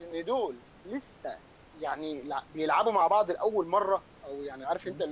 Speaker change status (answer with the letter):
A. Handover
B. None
B